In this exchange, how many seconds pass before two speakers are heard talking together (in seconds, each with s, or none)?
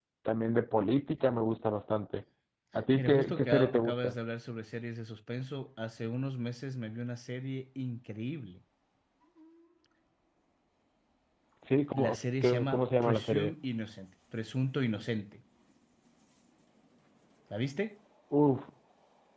3.0 s